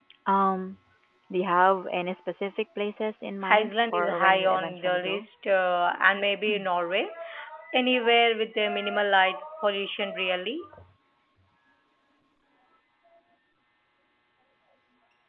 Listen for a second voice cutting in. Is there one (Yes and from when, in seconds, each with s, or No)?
Yes, from 3.4 s